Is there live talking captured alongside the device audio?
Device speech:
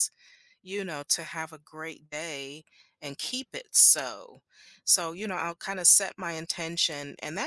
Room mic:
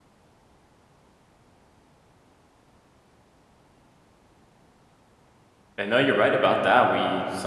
Yes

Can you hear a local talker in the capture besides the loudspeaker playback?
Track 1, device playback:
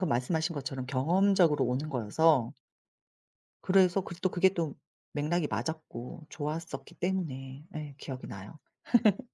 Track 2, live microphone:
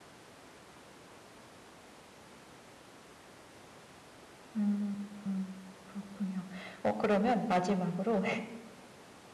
Yes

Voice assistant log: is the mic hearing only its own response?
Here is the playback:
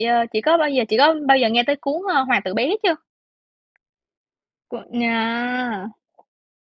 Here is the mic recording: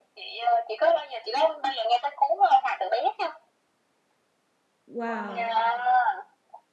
No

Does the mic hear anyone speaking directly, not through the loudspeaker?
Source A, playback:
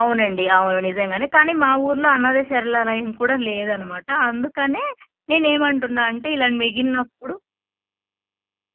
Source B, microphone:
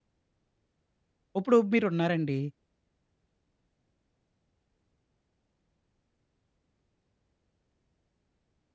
Yes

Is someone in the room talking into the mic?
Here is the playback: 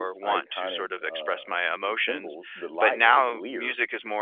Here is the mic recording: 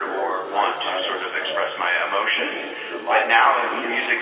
No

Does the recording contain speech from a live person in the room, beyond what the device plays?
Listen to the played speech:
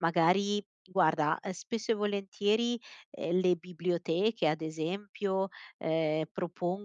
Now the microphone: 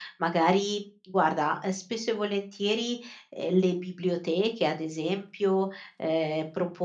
No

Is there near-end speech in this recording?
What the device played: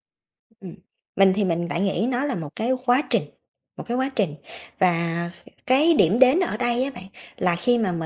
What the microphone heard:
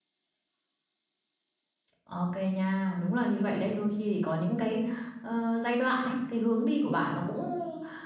Yes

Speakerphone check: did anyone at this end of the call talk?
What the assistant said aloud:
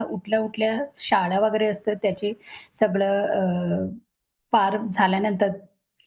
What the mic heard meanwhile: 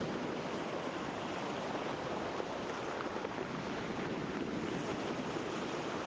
No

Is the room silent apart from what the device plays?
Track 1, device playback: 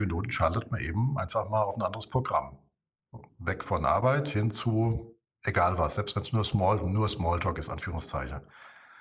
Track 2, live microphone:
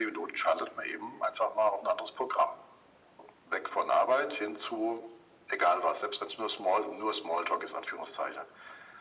Yes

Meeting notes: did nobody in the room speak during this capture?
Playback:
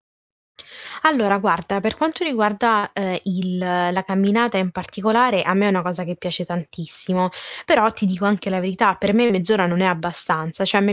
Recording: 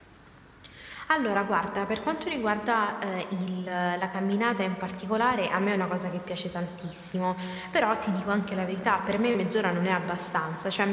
Yes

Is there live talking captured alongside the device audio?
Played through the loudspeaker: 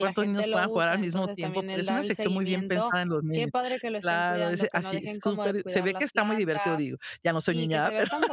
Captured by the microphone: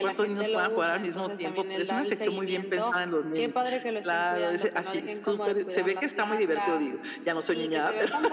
No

